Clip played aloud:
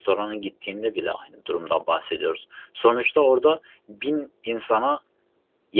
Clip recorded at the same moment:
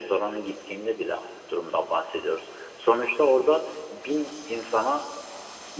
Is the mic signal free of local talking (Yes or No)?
Yes